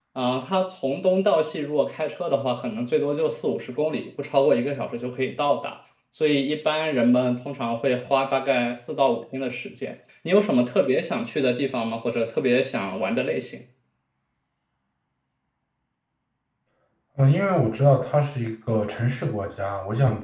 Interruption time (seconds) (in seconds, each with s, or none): none